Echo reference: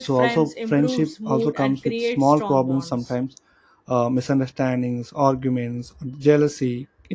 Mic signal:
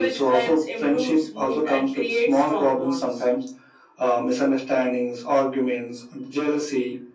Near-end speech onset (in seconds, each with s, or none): none